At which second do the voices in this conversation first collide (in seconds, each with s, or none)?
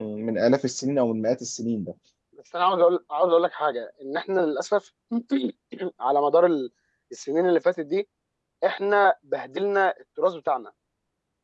none